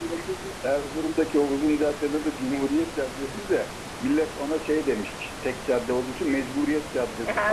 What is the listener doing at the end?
taking over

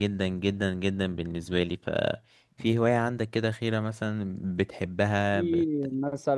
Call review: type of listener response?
taking over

